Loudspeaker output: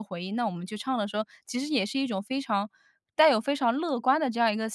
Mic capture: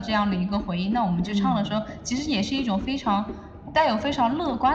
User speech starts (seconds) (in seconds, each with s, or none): 1.2 s